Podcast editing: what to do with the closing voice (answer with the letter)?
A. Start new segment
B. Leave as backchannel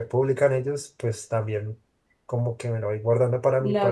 B